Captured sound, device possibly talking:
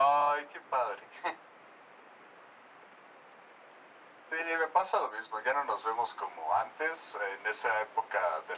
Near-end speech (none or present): none